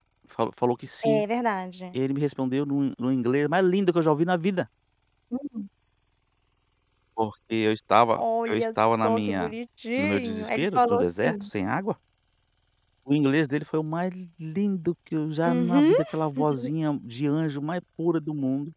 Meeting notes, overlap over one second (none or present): present